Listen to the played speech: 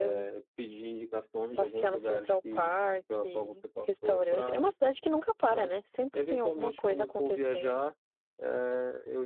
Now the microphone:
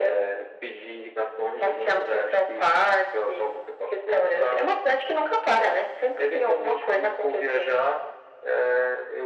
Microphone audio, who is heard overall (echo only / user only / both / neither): echo only